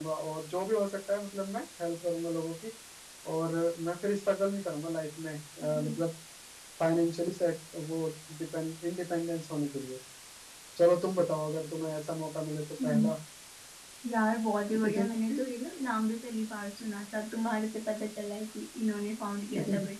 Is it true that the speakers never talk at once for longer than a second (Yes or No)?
Yes